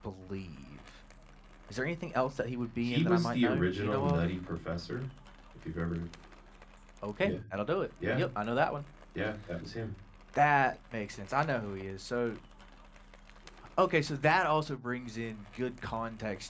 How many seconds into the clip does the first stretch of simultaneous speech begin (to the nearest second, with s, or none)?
3 s